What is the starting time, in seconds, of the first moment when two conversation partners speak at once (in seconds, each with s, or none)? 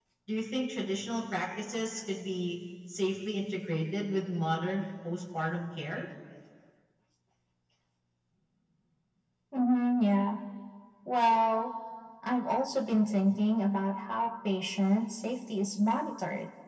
none